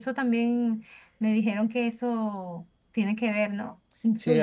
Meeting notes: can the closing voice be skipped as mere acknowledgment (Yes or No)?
No